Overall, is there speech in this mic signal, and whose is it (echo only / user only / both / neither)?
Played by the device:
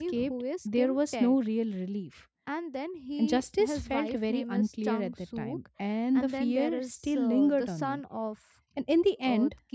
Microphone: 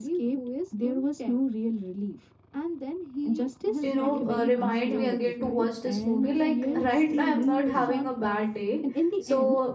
both